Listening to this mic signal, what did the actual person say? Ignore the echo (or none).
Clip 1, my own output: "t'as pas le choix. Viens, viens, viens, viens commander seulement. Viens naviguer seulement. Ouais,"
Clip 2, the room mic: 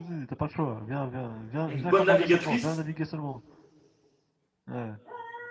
une bonne navigatrice.